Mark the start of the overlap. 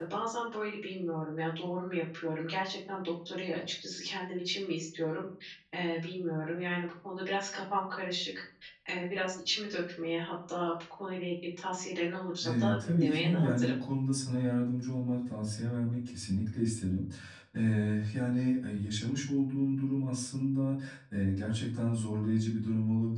12 s

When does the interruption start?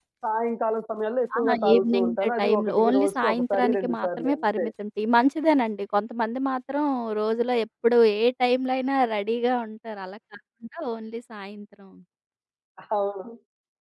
1 s

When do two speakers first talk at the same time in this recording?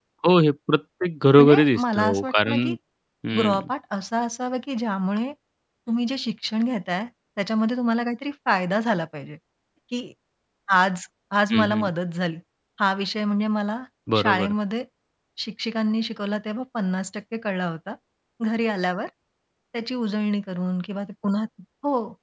1 s

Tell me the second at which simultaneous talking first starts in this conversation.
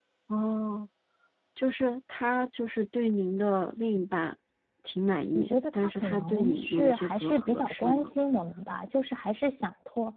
5 s

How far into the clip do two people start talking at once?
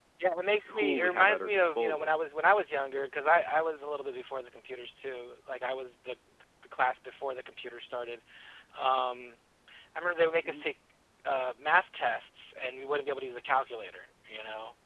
1 s

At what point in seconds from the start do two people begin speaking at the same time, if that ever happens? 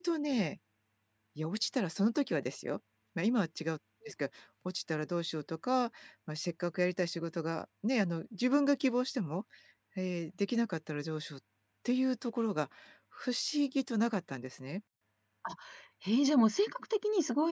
none

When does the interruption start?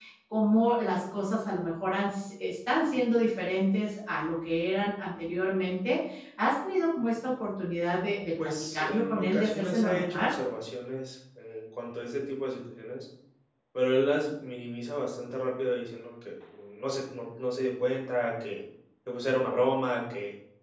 8 s

